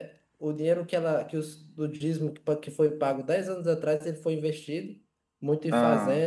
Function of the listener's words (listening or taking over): listening